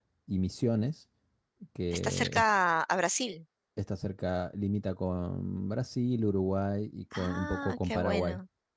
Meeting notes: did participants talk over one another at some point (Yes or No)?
Yes